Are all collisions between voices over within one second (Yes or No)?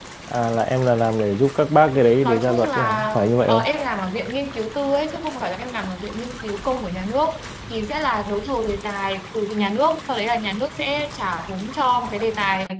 No